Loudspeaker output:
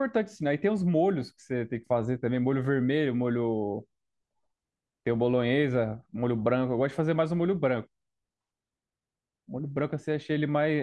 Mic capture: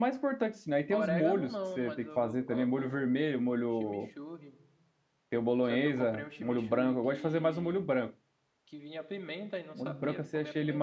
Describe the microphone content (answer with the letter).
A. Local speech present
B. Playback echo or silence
A